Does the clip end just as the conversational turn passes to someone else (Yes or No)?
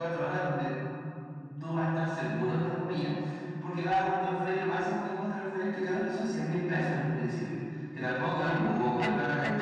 Yes